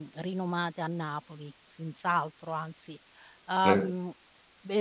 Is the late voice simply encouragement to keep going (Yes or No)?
Yes